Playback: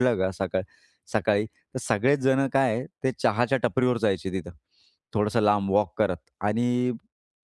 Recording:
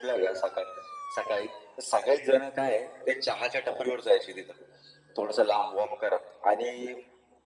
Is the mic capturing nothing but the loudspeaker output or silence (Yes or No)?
Yes